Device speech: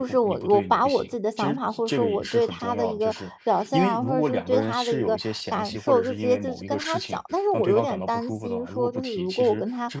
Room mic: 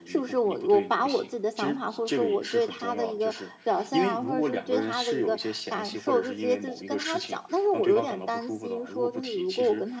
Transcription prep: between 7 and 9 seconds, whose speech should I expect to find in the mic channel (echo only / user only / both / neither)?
echo only